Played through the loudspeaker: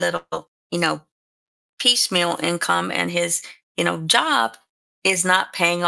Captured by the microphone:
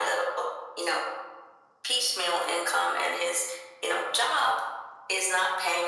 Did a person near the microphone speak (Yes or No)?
No